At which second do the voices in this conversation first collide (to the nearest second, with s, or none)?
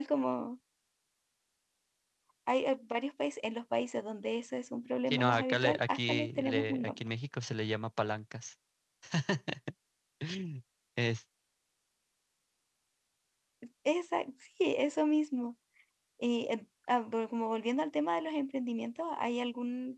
5 s